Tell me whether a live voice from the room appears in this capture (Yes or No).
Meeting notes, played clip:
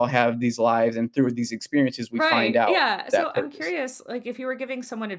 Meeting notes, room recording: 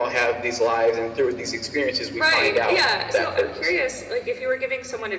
No